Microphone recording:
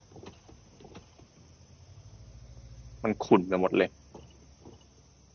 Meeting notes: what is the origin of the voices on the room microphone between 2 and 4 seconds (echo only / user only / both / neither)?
user only